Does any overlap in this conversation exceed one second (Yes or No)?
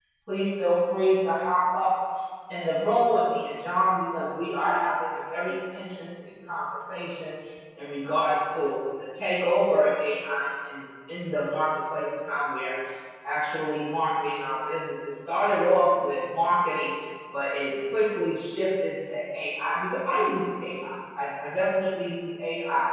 No